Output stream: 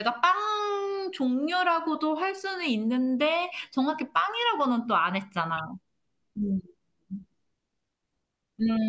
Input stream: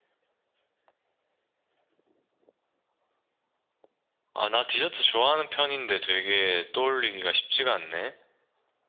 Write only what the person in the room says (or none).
아, 나 디저트 좋아하는 편인데 되게 떠올리기가 쉽지가 않네.